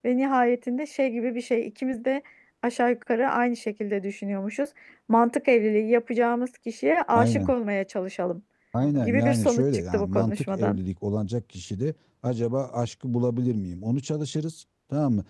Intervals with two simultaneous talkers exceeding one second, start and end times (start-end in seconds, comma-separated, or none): 9.0-10.8